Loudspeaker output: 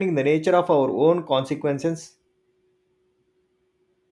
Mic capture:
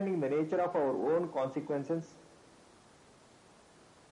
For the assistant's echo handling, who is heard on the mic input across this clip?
echo only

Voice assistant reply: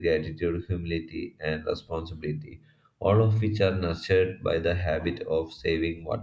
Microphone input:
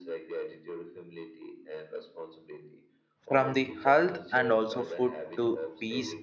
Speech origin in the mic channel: both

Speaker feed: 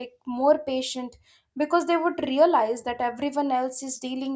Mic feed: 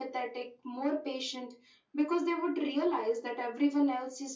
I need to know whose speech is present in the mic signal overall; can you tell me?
echo only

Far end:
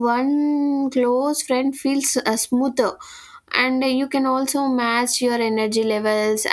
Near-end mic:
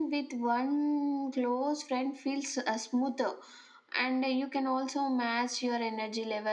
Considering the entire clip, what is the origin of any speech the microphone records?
echo only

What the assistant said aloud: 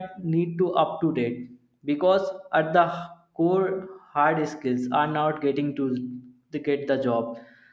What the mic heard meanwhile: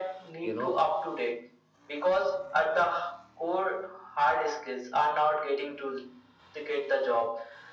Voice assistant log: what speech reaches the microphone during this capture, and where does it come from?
both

